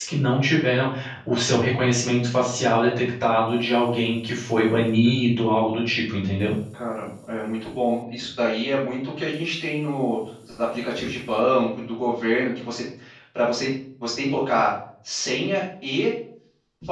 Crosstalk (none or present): none